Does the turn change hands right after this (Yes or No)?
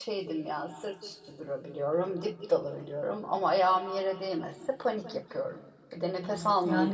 Yes